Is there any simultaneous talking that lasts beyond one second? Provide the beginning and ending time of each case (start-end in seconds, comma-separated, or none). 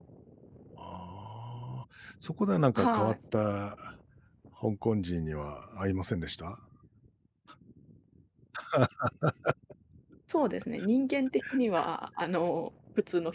none